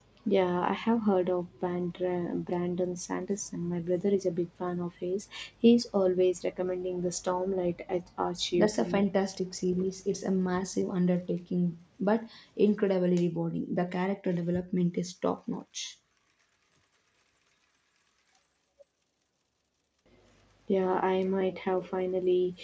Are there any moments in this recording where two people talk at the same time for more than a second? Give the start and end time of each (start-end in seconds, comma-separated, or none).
none